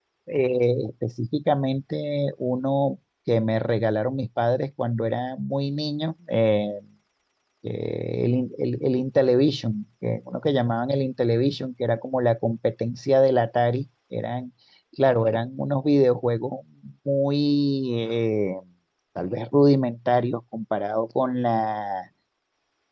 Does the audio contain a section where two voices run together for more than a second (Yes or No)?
No